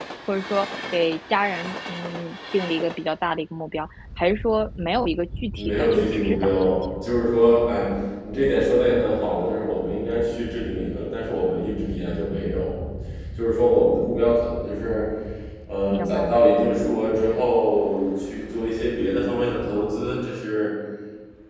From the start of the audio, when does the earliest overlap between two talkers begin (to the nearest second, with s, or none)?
6 s